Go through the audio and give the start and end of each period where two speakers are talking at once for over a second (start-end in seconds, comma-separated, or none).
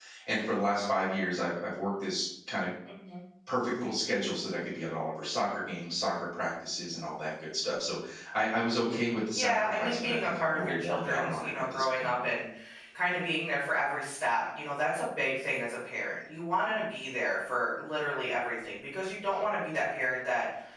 9.3-12.2